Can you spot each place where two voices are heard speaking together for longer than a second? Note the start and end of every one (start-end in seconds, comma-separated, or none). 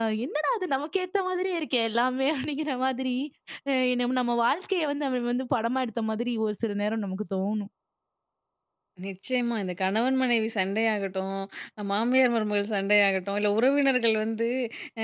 none